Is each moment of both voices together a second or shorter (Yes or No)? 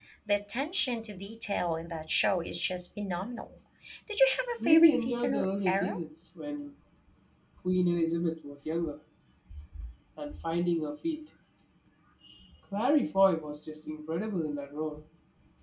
No